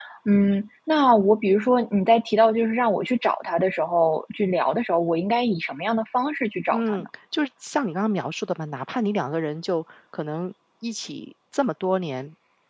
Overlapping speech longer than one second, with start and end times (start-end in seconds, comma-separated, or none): none